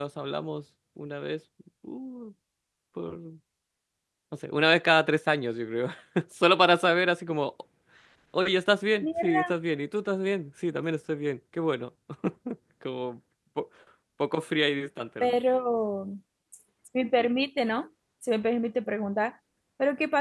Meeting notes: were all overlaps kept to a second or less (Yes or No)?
Yes